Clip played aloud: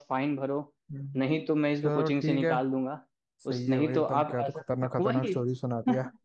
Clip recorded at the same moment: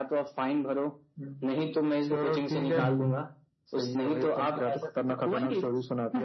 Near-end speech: present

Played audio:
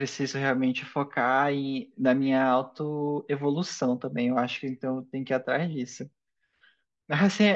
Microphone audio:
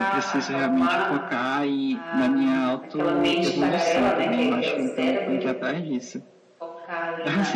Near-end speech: present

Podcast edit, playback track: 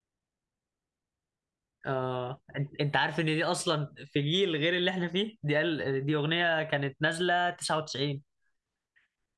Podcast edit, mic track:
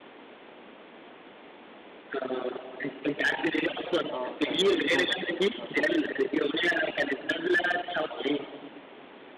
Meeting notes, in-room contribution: present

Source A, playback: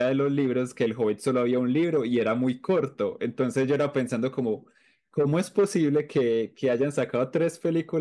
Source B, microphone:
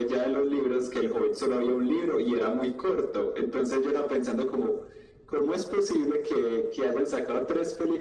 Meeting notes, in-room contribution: none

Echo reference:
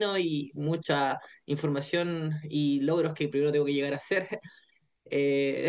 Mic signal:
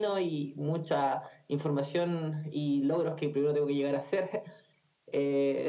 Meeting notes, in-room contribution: none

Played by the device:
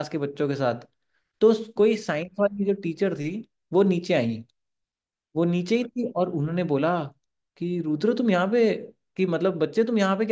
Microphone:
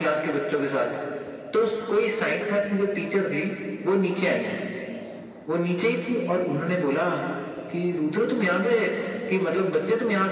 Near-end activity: none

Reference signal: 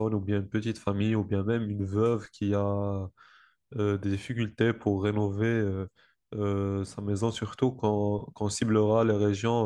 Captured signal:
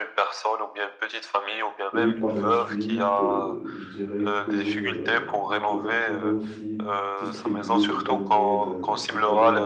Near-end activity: present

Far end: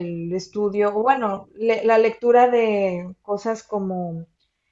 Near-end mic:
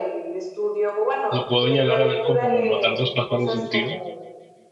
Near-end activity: present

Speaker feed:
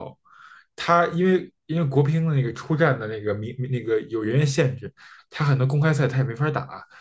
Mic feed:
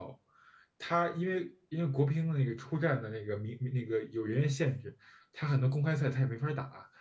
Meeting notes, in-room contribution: none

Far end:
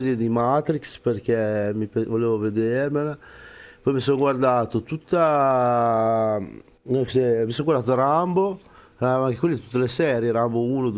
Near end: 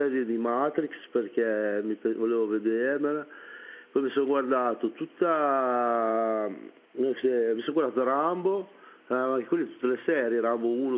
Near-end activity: none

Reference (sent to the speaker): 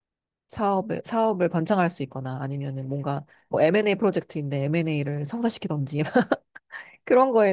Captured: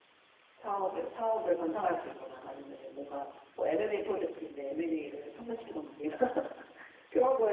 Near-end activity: none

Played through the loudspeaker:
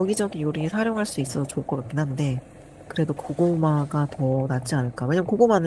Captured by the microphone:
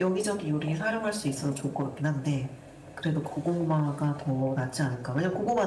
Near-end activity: none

